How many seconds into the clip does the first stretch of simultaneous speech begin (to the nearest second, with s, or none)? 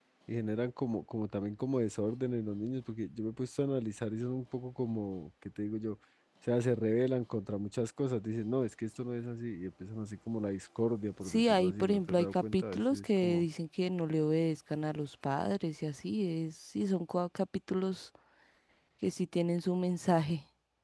11 s